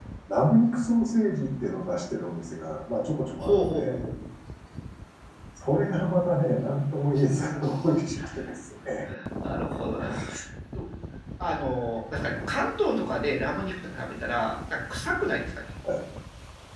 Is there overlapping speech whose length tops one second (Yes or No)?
No